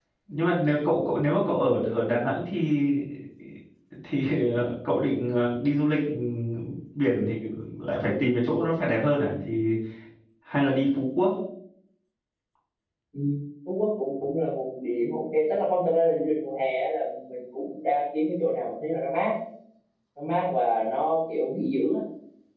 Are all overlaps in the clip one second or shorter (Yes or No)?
Yes